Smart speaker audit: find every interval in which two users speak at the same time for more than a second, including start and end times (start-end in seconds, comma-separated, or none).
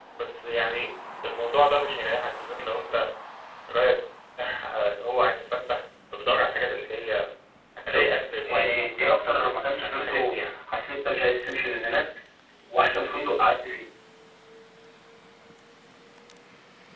8.4-10.5